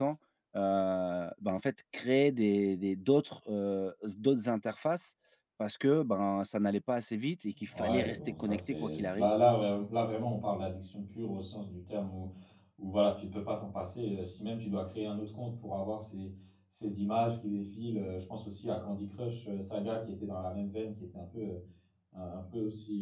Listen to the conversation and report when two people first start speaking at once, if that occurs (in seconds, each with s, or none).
7.7 s